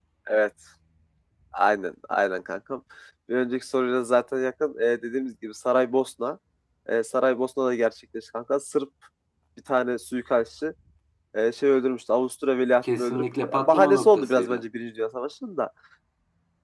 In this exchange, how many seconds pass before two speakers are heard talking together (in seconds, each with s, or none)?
12.8 s